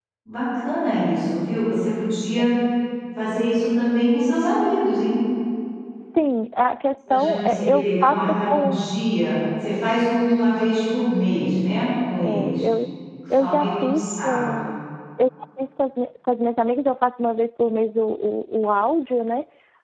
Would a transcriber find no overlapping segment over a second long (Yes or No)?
No